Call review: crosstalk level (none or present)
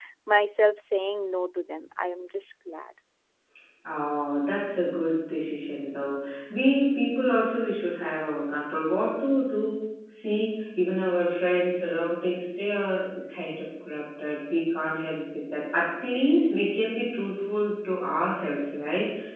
none